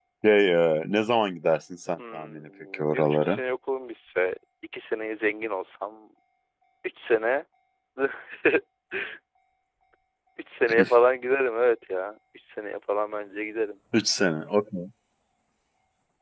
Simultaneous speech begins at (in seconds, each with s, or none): 2.0 s